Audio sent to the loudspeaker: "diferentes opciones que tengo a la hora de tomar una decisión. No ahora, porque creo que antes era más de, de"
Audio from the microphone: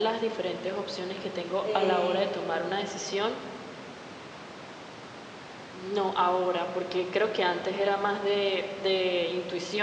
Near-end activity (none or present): present